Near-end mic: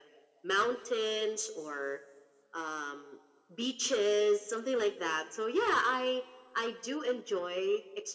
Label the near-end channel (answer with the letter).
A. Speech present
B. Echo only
B